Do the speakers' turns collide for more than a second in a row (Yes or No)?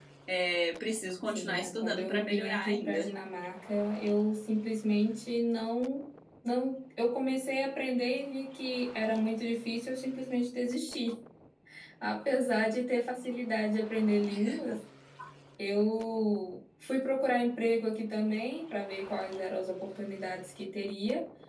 Yes